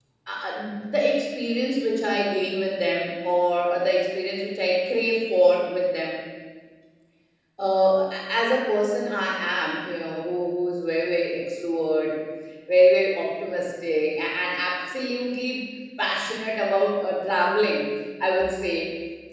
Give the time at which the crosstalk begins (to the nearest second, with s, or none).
none